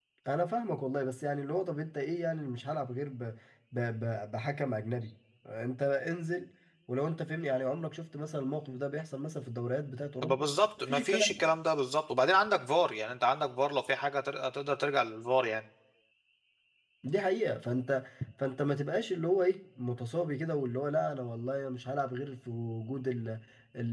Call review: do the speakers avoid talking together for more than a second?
Yes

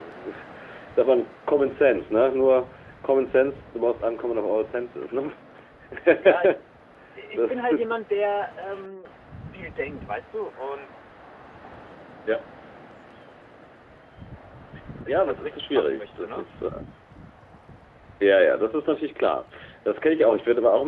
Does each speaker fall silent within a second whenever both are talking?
No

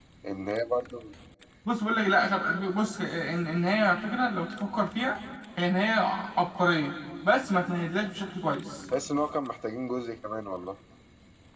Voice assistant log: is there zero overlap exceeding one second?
Yes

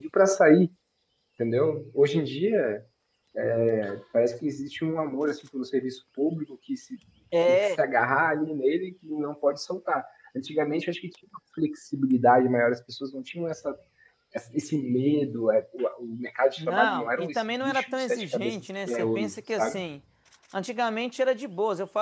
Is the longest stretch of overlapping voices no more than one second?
No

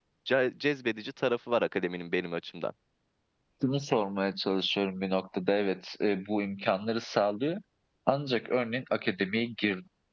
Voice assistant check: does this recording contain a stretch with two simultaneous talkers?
No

